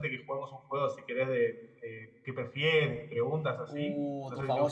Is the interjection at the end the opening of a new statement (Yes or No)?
Yes